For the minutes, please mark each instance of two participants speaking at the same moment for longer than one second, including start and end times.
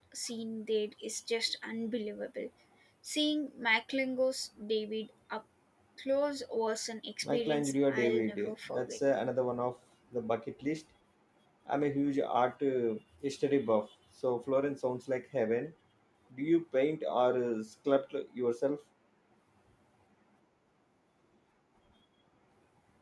7.2-9.0

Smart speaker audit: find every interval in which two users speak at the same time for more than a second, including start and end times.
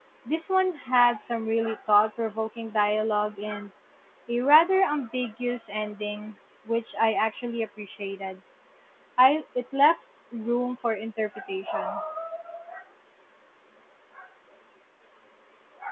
none

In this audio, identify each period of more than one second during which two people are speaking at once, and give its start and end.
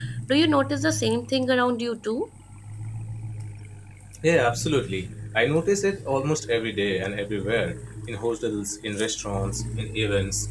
none

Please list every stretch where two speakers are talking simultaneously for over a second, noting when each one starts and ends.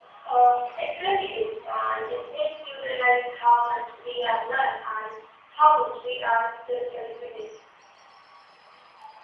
none

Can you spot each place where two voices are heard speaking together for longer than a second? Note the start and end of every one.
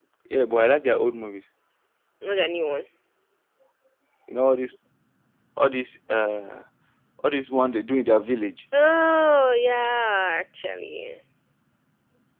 none

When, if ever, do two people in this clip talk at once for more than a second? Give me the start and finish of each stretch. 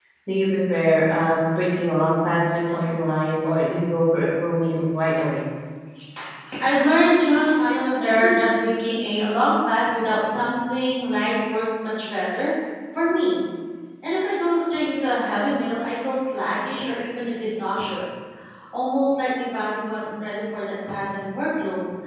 none

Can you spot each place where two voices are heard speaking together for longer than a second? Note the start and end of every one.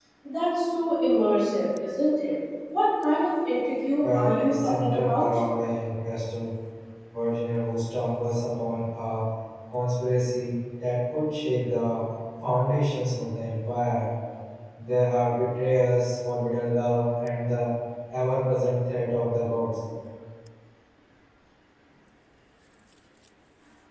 4.0-5.2

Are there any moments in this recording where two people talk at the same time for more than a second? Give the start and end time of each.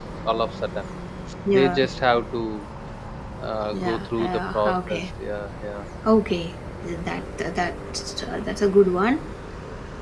3.7-5.0

